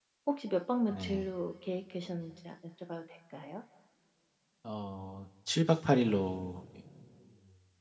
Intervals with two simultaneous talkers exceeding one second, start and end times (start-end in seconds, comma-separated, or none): none